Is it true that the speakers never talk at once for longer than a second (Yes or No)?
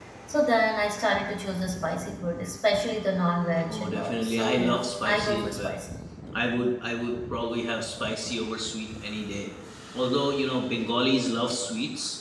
No